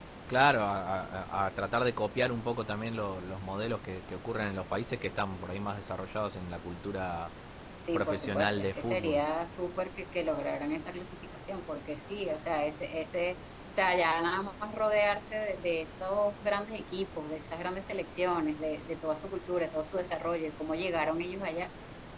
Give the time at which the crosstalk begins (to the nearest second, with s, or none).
8 s